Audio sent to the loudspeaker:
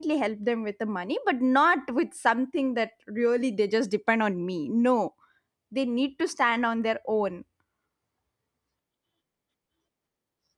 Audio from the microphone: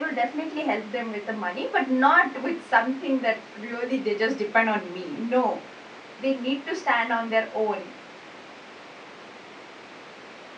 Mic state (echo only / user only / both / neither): echo only